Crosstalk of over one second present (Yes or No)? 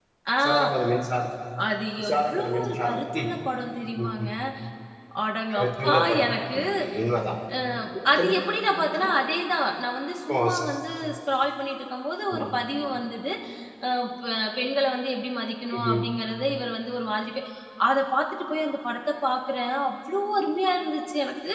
Yes